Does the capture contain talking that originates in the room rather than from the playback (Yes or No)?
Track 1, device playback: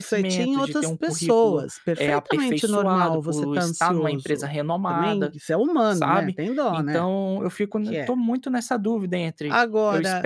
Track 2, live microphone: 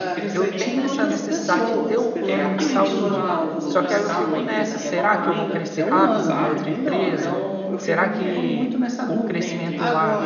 Yes